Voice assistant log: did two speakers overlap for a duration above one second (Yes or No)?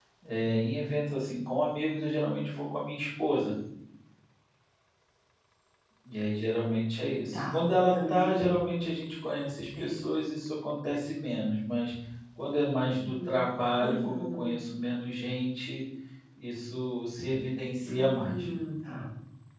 Yes